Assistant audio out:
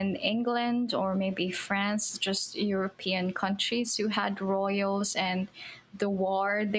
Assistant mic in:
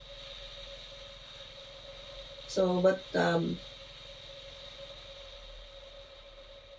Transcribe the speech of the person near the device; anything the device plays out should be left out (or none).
So, but um,